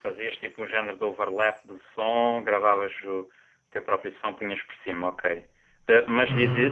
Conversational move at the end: listening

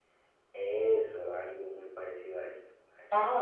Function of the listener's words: taking over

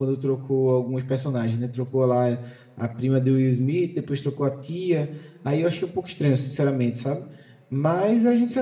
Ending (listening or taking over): listening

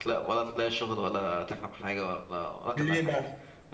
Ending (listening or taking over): listening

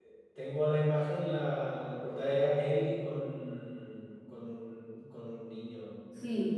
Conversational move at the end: taking over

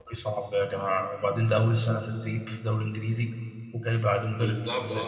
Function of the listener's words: taking over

